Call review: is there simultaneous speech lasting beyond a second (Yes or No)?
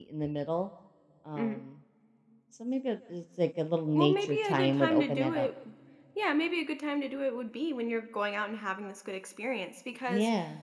Yes